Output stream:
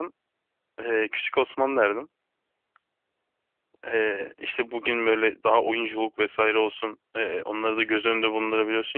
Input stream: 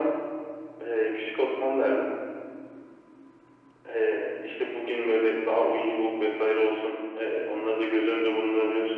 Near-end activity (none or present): none